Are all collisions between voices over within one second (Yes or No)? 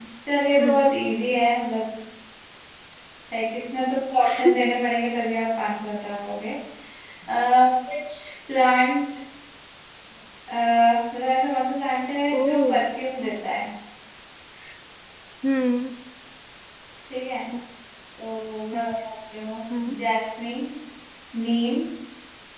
Yes